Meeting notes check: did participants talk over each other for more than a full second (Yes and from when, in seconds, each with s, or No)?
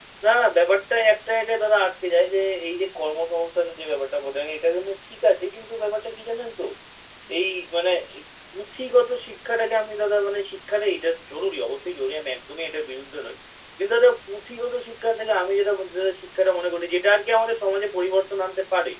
No